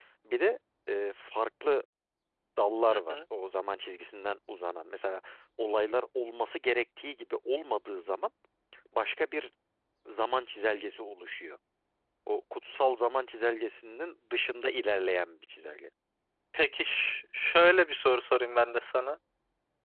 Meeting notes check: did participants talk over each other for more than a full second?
No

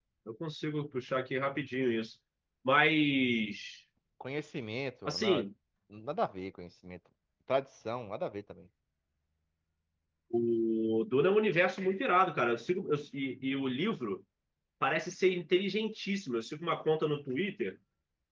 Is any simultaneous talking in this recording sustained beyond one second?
No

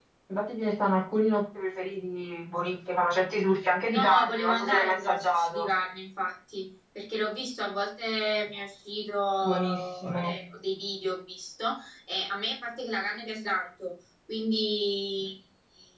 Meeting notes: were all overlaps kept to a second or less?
No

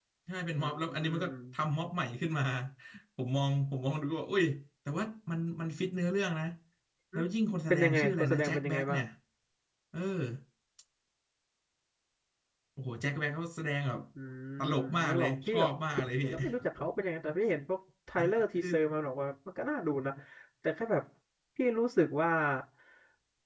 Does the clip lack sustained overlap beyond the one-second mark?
No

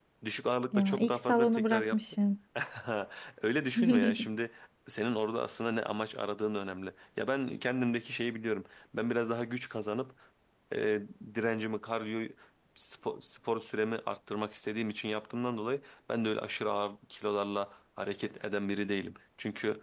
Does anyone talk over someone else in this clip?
Yes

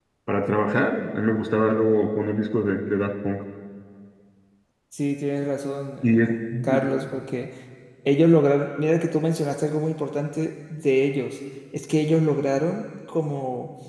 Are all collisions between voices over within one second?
Yes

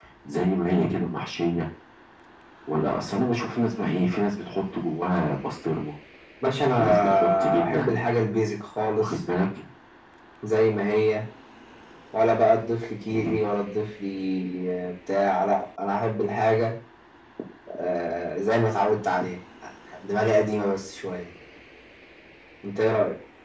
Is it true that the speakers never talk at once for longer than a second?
No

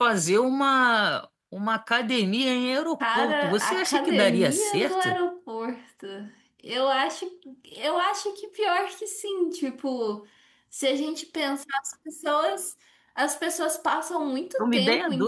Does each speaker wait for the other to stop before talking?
No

